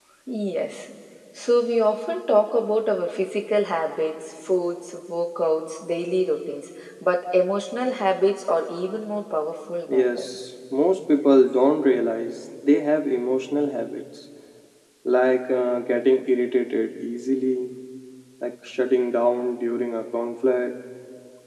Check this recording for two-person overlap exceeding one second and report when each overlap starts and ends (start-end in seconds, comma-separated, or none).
none